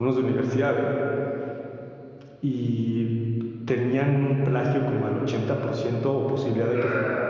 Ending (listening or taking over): listening